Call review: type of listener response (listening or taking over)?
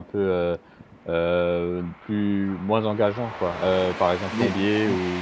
listening